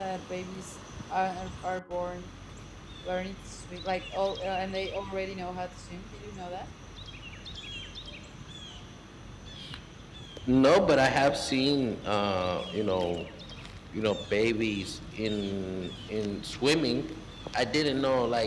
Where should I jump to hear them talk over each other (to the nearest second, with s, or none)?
none